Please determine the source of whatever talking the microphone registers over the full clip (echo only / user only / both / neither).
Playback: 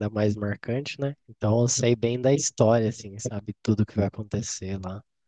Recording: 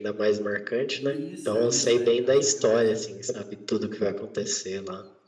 both